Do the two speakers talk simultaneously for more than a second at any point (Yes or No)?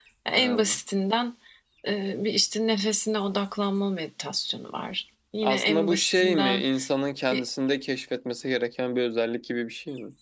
Yes